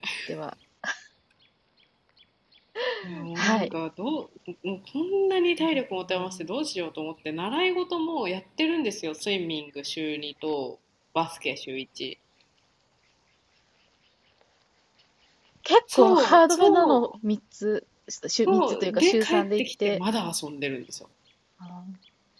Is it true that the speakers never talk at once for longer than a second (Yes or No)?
No